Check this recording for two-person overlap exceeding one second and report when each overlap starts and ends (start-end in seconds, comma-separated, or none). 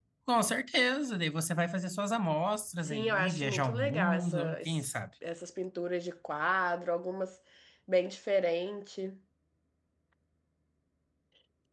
2.9-4.9